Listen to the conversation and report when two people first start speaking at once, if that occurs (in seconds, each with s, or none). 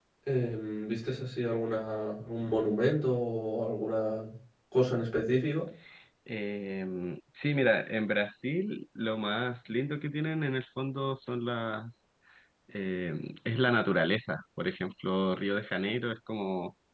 none